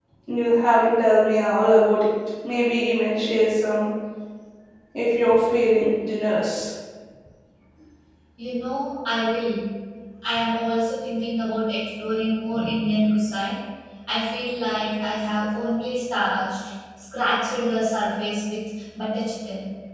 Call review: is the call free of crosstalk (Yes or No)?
Yes